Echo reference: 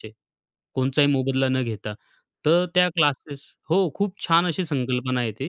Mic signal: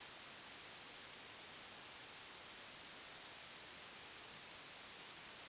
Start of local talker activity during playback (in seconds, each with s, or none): none